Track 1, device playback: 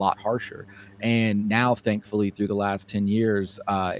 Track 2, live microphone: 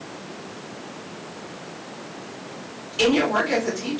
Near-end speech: present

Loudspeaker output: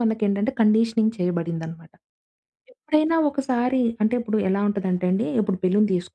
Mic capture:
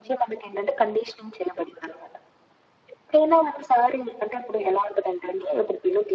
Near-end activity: none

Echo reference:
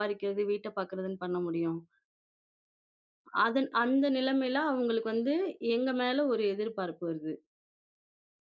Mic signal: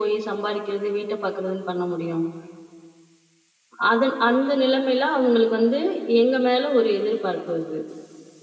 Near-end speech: none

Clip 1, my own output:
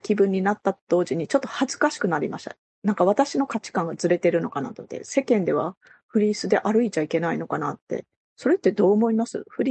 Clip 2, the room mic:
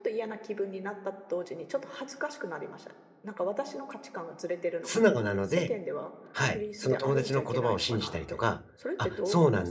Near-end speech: present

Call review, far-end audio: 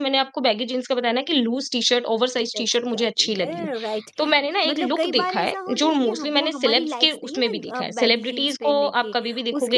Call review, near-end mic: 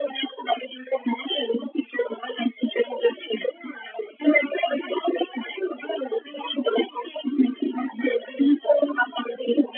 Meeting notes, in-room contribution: none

